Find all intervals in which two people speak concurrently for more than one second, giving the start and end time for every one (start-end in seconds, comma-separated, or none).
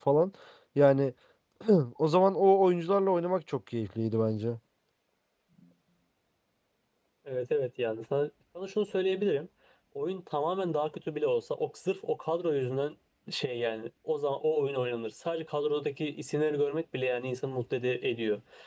none